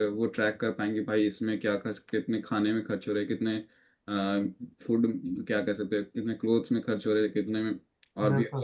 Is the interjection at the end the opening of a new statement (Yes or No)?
No